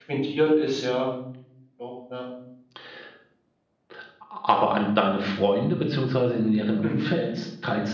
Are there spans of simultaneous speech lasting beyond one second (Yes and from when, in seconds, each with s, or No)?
No